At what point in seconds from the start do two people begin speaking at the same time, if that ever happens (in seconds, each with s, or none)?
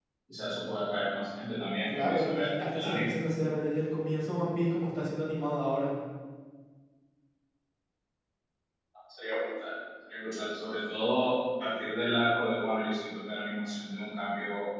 1.9 s